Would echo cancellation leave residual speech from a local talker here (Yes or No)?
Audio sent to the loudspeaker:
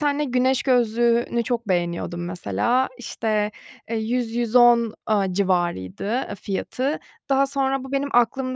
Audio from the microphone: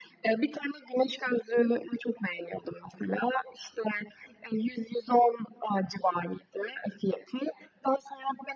No